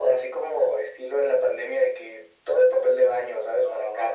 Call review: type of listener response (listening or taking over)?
taking over